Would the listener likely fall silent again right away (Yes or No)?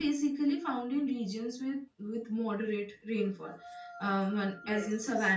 Yes